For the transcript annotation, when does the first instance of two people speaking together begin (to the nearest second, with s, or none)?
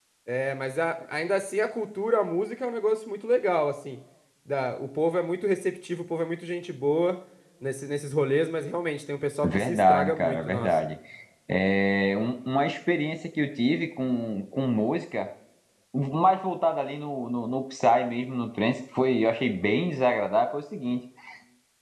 9 s